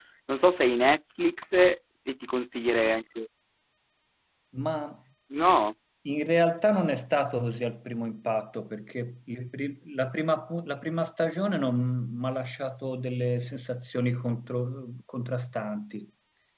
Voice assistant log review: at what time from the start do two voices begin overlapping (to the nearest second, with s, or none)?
none